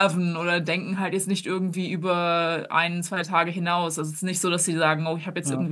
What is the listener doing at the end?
listening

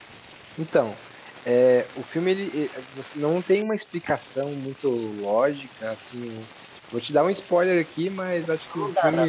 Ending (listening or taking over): taking over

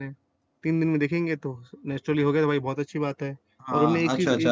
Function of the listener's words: taking over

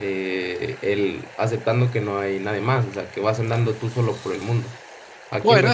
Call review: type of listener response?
taking over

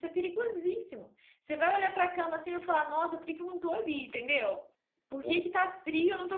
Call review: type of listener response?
listening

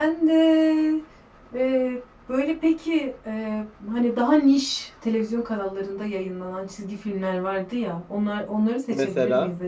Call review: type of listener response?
listening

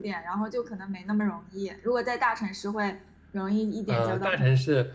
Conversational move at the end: taking over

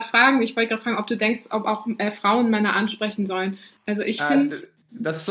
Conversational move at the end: taking over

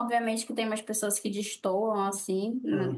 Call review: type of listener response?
listening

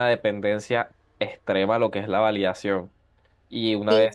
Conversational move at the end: listening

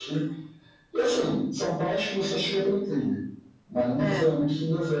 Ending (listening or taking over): listening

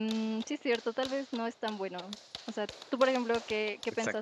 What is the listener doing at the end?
taking over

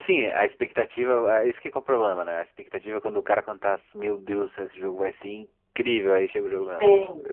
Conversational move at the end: taking over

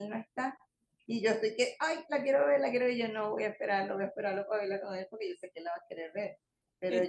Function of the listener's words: listening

